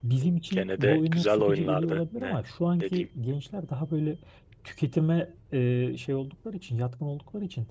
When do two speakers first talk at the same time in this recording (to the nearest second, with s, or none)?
1 s